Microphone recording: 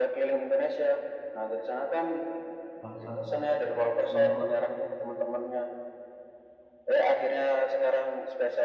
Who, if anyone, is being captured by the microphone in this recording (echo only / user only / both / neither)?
both